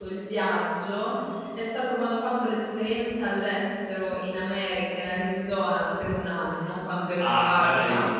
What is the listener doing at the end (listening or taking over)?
taking over